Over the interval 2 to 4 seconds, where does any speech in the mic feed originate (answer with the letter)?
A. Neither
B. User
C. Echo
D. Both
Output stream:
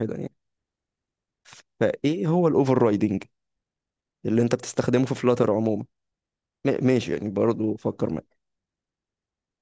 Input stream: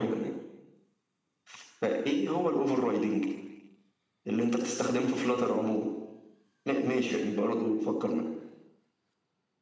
C